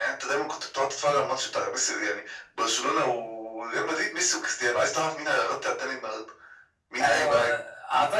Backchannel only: No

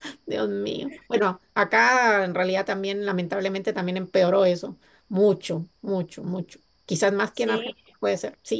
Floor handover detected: No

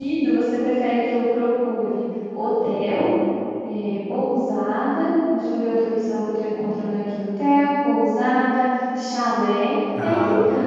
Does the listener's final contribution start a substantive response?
No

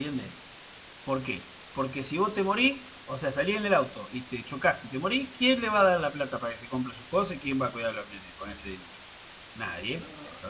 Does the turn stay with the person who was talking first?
Yes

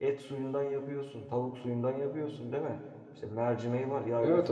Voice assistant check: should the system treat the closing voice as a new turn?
No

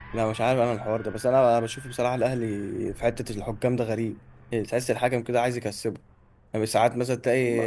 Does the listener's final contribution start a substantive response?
No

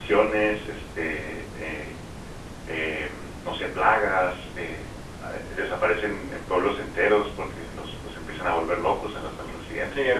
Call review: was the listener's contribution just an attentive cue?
No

